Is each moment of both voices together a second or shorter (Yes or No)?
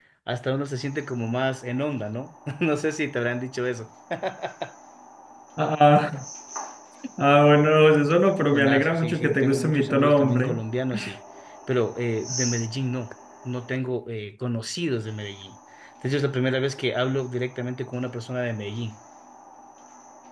No